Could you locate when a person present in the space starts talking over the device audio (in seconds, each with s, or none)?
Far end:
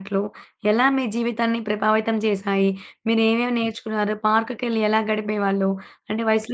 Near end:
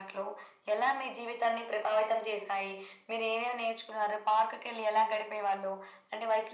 none